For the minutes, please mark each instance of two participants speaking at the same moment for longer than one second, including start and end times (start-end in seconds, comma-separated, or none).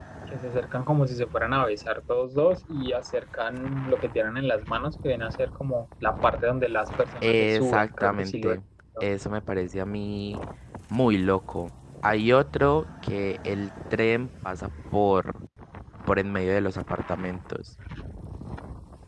7.2-8.6